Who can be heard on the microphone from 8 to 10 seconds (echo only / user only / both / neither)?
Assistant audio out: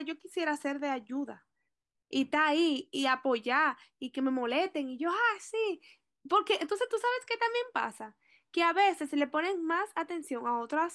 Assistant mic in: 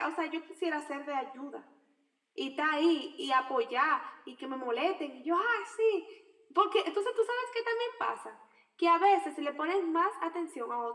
echo only